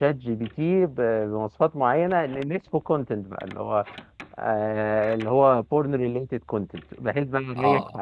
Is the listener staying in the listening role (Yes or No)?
Yes